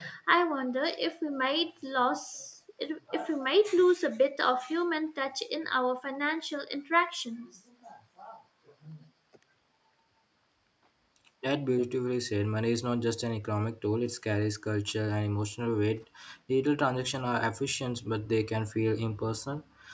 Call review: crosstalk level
none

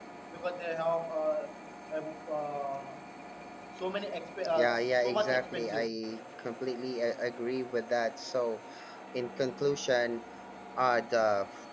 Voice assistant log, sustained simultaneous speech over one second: present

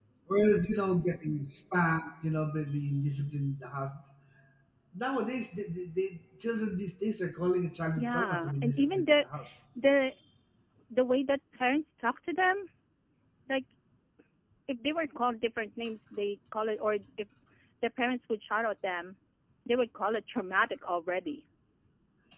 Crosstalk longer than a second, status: present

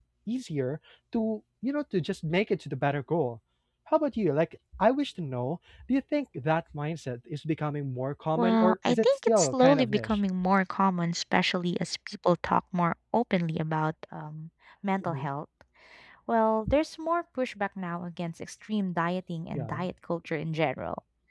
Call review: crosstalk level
present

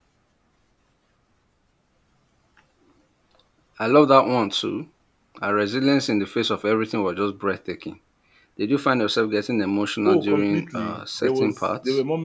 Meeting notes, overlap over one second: present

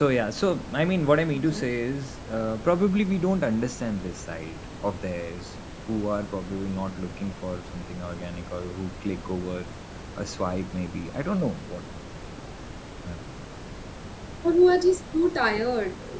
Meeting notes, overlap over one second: none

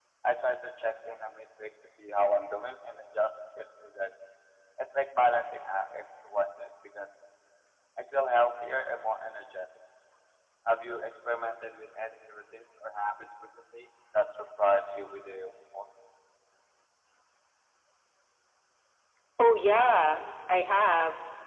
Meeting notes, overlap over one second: none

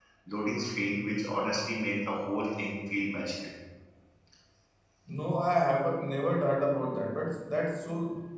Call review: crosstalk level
none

